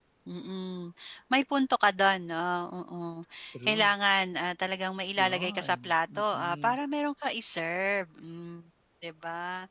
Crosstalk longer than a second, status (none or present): present